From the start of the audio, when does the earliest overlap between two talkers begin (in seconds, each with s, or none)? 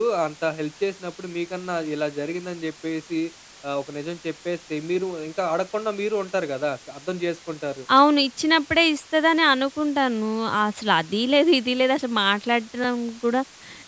none